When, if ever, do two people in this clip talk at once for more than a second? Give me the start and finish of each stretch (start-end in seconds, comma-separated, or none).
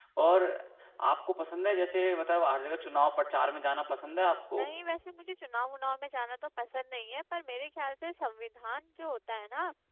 none